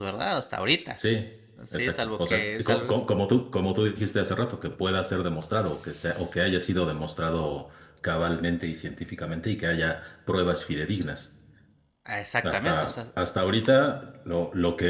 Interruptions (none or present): present